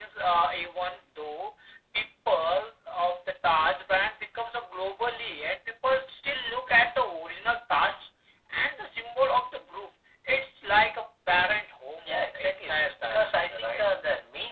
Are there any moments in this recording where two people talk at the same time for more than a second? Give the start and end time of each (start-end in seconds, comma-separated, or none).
12.1-13.8